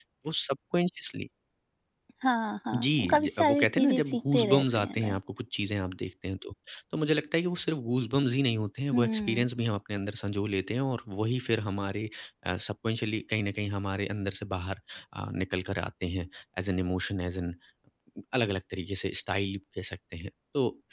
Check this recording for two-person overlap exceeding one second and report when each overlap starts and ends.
2.8-5.2

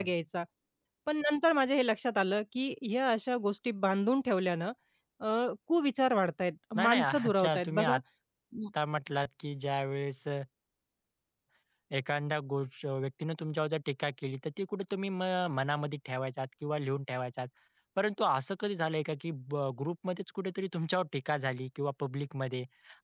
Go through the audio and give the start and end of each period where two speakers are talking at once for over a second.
6.8-8.0

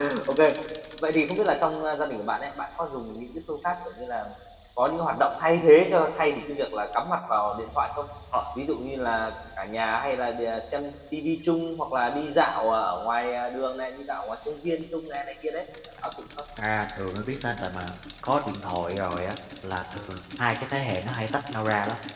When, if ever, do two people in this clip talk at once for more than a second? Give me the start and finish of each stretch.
none

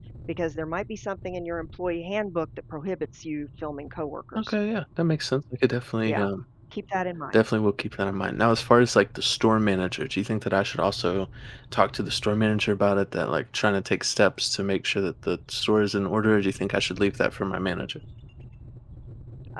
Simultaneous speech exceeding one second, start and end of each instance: none

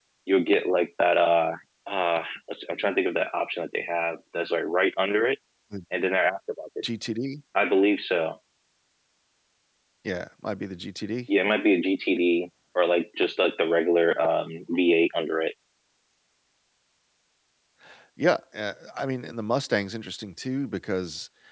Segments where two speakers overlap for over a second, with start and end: none

